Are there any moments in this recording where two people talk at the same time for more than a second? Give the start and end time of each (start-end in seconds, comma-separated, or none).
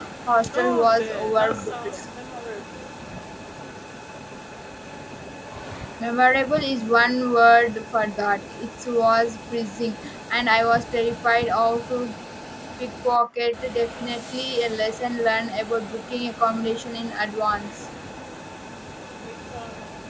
0.6-2.0